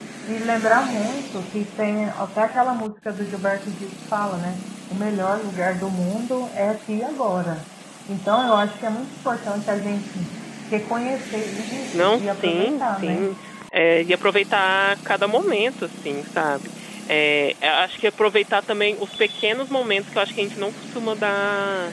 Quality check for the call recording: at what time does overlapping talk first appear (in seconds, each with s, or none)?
11.9 s